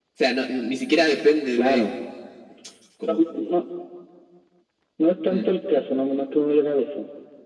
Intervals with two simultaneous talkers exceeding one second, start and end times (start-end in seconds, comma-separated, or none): none